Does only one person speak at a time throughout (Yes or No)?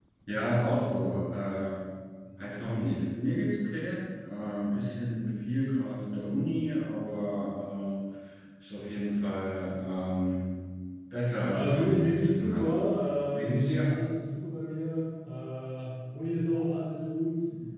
No